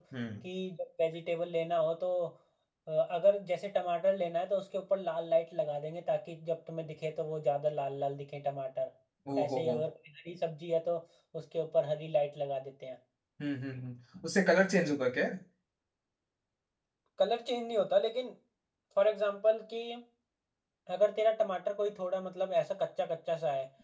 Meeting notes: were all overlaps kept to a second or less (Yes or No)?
Yes